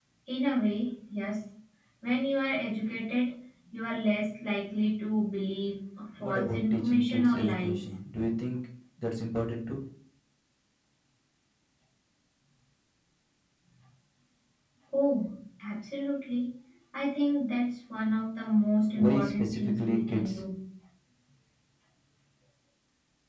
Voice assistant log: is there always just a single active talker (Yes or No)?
No